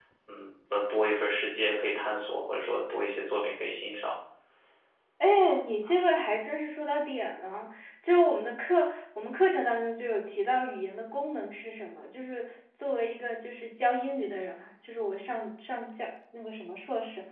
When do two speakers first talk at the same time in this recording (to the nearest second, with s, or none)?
none